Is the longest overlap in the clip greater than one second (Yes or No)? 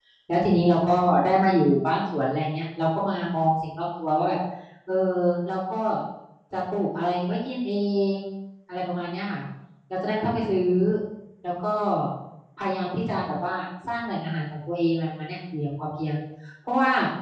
No